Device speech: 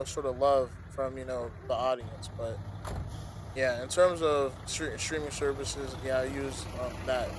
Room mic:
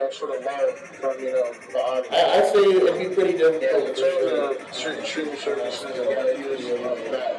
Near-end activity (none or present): present